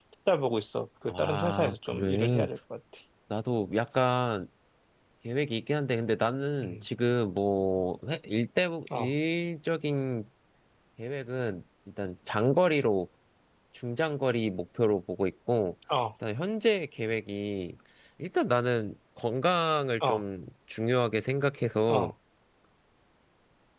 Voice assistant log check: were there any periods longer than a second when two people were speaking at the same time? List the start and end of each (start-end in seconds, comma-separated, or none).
1.1-2.4